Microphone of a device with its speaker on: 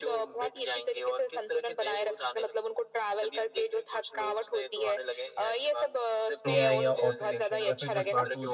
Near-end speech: present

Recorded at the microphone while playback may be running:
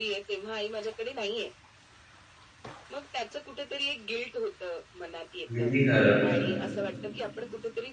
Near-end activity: present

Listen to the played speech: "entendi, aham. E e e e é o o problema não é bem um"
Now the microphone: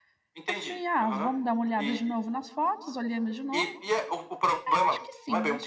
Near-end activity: present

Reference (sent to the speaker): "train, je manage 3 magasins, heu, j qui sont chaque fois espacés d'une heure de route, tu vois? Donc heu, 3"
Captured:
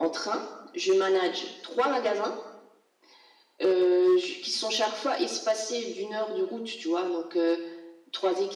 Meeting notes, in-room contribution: none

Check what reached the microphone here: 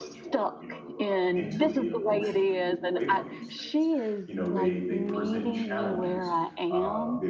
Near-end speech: present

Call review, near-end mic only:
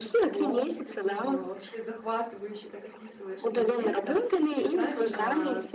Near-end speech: present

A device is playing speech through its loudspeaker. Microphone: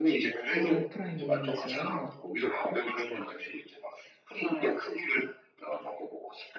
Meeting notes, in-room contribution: present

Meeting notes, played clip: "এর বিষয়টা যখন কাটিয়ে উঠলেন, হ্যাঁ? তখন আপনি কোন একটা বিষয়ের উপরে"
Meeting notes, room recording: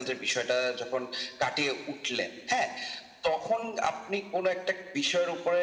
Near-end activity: none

